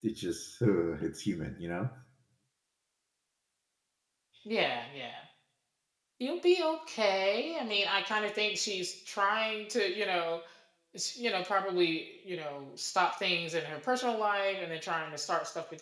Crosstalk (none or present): none